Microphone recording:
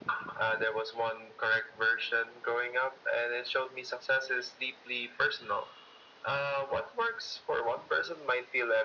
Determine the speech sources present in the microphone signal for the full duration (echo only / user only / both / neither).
echo only